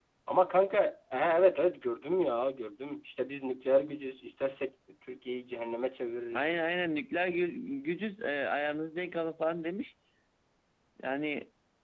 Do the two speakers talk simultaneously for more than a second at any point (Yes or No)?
No